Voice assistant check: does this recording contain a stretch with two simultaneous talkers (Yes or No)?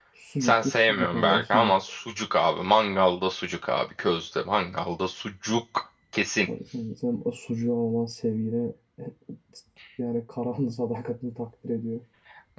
Yes